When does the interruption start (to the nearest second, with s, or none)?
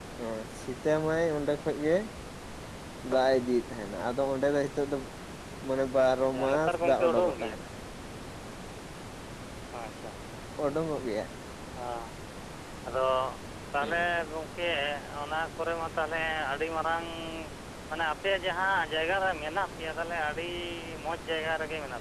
6 s